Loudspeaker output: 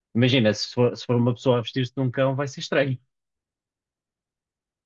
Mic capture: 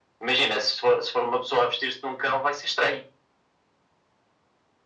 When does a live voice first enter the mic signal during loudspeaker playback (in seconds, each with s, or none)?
none